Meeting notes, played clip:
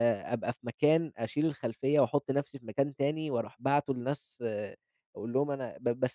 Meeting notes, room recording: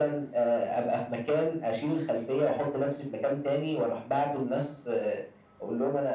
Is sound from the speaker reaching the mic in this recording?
Yes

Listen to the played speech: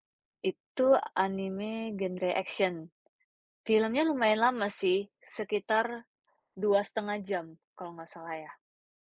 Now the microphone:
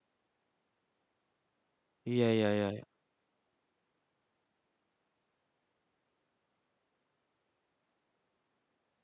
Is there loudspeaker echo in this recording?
No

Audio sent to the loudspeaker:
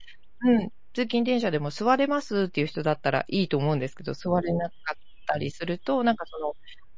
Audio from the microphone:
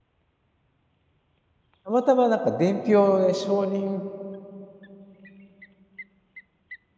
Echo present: No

